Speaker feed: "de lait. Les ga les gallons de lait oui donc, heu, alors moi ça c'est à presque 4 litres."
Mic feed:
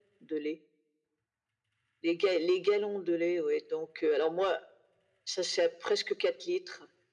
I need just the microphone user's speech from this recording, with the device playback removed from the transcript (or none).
none